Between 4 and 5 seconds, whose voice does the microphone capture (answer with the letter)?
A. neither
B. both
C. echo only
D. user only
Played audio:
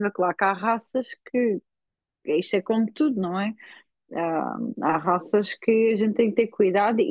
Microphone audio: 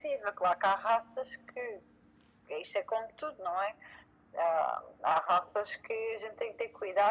C